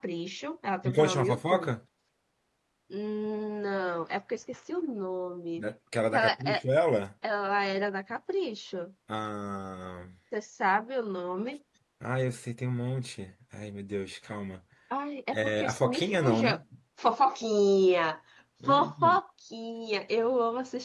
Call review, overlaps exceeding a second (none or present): present